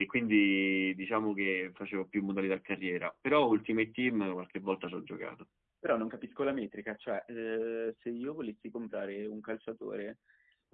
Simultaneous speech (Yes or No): No